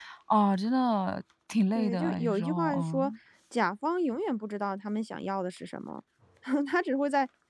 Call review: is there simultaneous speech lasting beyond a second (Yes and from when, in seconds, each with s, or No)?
Yes, from 1.7 s